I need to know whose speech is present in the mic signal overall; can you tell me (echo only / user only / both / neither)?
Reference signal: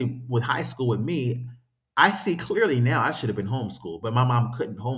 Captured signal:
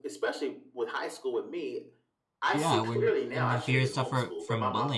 both